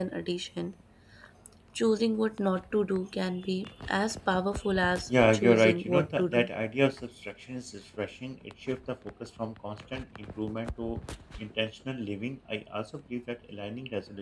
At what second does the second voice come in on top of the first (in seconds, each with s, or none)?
5.1 s